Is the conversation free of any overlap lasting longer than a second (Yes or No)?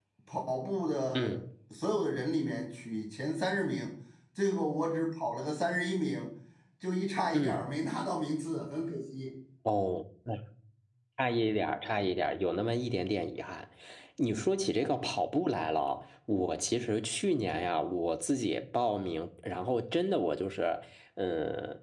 Yes